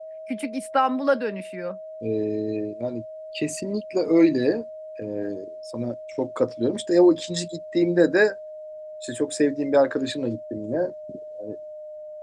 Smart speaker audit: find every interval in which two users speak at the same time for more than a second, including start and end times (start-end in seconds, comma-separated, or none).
none